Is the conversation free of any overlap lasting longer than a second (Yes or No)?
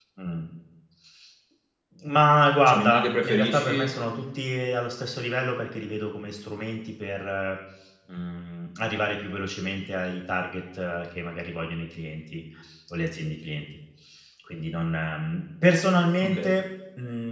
No